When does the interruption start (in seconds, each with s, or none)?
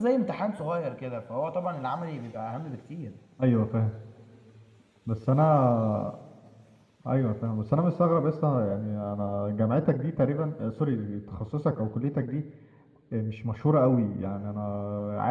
none